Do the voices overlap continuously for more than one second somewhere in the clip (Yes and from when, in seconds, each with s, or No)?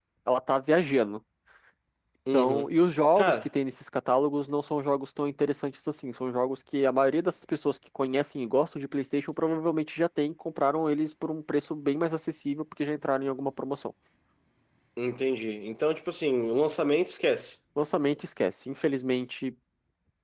No